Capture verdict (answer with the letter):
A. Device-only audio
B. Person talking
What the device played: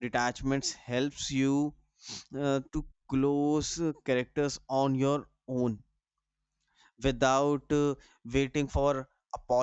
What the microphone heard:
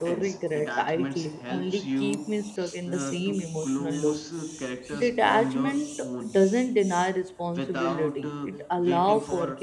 B